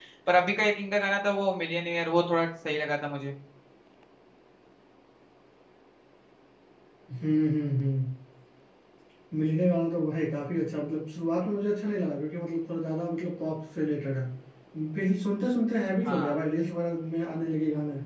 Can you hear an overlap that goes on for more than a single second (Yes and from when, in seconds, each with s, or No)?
No